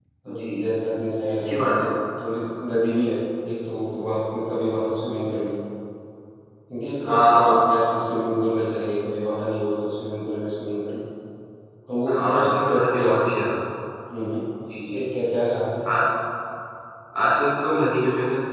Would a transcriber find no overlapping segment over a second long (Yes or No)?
No